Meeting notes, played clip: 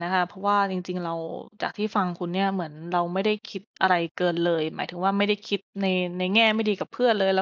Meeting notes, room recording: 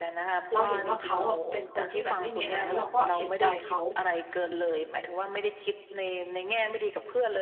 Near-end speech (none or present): present